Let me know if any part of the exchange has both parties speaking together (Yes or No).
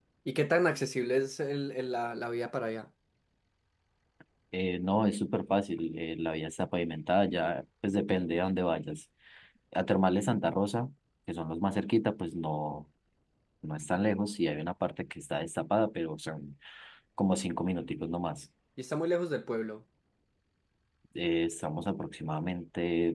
No